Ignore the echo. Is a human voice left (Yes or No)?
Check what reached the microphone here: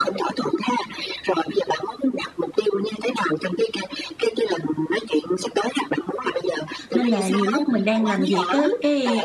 Yes